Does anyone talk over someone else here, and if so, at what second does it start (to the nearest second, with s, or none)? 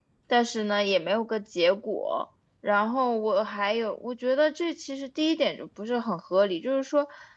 none